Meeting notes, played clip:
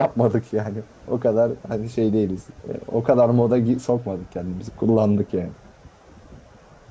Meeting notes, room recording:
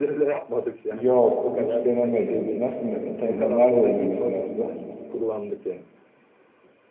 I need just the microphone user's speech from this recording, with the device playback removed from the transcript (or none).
Yok hiç denemedim. Nasıl me- ta- nerede oluyor mesela turlar?